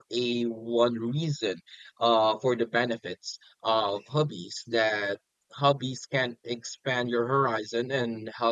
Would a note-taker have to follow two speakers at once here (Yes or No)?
No